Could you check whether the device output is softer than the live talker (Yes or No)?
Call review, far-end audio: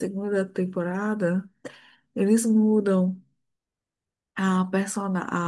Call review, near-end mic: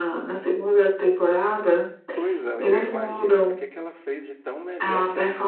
No